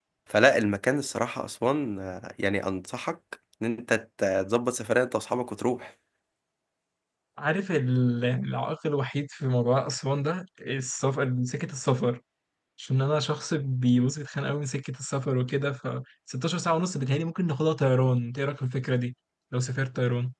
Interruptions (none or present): none